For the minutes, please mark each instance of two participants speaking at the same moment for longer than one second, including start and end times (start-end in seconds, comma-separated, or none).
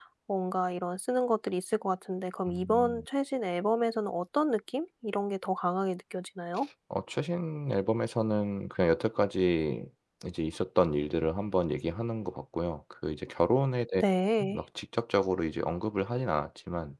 none